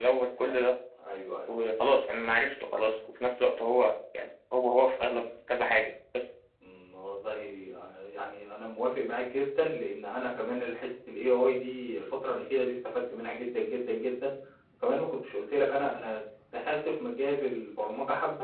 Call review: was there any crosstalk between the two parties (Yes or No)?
No